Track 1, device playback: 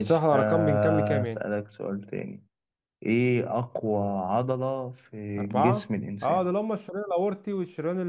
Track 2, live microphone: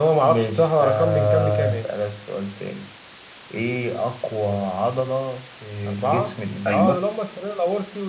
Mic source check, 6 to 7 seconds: both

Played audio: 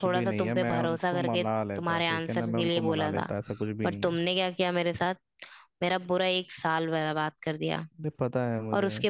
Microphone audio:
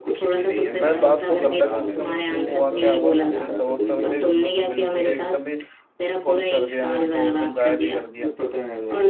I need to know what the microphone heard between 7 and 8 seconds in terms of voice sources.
both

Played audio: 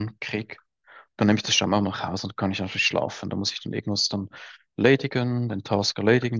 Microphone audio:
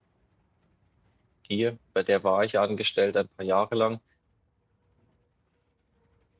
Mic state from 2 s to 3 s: user only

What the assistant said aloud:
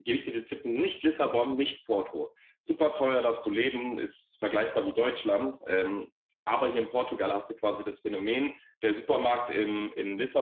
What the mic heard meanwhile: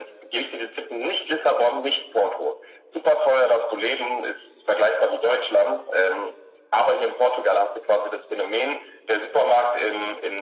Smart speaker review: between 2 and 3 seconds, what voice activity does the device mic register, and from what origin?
echo only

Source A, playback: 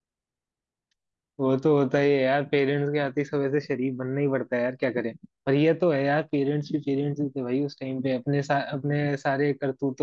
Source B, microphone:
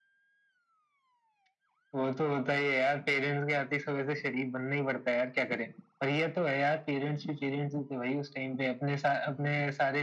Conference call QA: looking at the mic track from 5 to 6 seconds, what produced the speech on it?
echo only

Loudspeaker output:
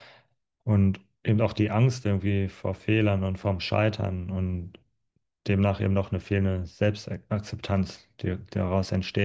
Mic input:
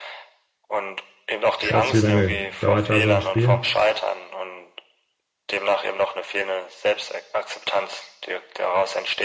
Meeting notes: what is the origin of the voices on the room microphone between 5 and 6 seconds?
echo only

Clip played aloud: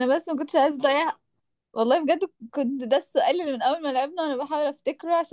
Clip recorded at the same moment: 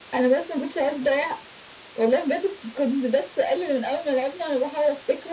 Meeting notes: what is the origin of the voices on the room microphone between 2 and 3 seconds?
echo only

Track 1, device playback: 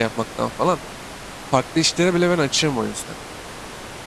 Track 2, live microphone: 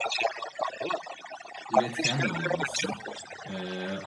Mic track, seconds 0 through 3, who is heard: both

